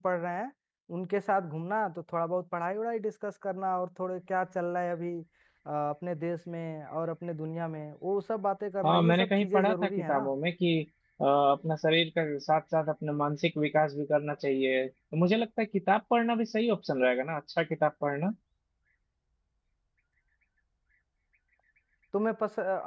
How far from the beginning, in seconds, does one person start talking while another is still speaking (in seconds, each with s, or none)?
8.8 s